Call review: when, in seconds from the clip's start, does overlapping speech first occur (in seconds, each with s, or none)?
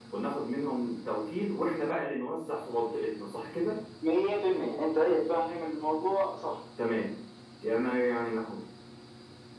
none